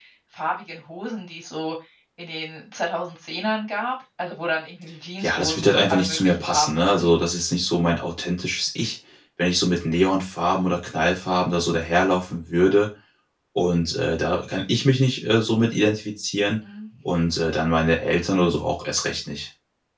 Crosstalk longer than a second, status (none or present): present